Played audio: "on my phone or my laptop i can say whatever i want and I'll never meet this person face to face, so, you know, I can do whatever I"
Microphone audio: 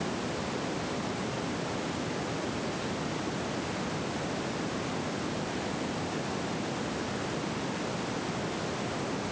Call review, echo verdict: none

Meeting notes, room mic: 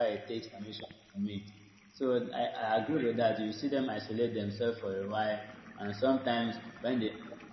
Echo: none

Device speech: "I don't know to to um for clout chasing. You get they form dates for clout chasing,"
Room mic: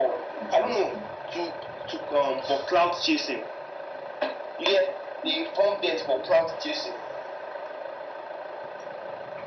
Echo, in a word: present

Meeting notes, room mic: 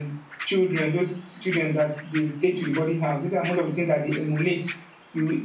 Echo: present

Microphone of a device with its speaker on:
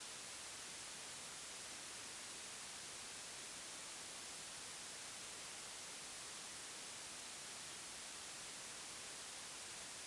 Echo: none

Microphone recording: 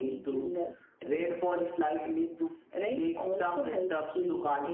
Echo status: present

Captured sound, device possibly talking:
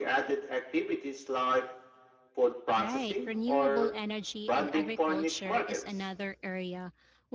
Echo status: present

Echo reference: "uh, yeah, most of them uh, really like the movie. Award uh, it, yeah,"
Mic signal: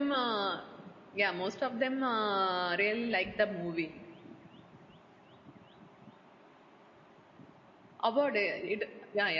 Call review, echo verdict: present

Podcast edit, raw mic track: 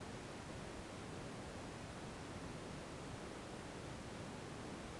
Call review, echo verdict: none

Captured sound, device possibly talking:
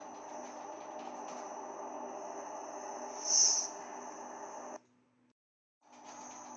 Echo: none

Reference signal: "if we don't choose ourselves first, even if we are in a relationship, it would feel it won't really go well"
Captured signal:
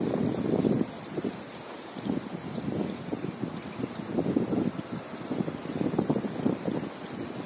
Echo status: none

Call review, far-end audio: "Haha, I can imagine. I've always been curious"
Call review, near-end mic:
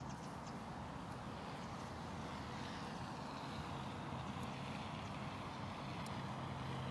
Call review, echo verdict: none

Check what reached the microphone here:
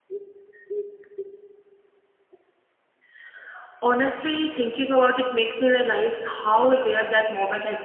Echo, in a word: none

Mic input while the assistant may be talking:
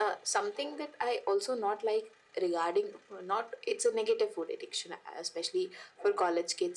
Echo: present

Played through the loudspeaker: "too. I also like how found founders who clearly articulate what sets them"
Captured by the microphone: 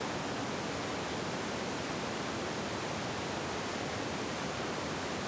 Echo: none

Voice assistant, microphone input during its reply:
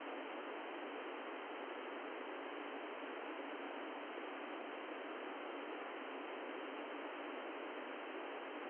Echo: none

